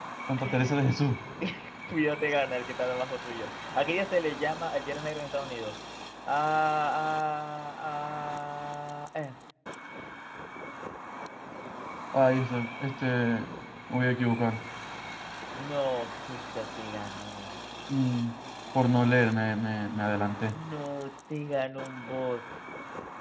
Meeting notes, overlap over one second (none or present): none